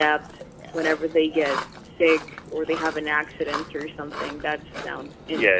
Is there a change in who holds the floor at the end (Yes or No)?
Yes